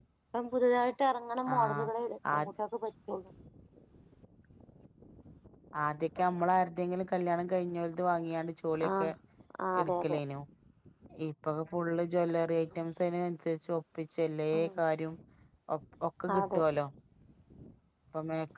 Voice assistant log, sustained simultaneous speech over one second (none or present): none